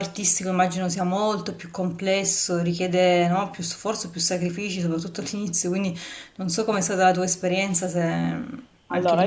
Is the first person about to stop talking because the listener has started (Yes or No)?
Yes